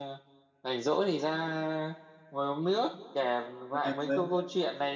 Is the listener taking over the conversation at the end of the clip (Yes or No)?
No